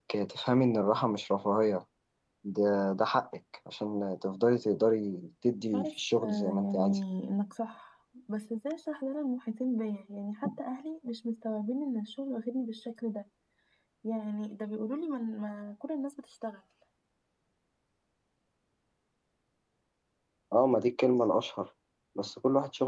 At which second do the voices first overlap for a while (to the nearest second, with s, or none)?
6 s